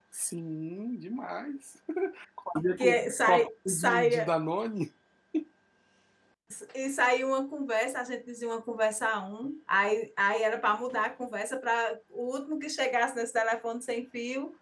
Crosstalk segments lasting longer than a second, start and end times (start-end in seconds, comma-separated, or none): 2.8-4.2